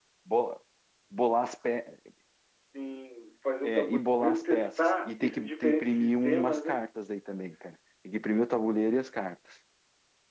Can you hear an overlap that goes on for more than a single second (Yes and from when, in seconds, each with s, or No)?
Yes, from 3.6 s